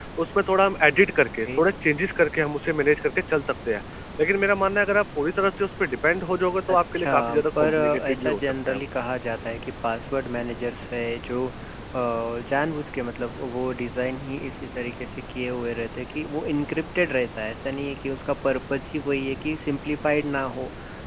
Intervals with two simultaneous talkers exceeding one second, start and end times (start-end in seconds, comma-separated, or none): 6.7-8.8